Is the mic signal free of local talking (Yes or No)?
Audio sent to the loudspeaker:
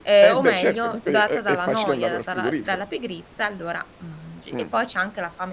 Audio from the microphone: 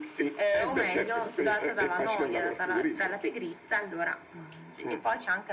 Yes